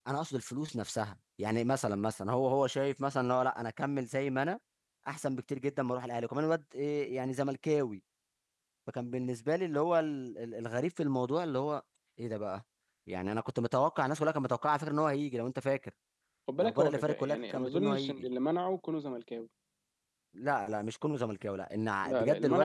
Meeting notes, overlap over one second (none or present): present